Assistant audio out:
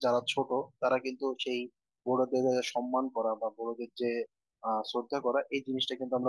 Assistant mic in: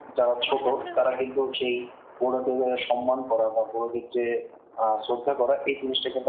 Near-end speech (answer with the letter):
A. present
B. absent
A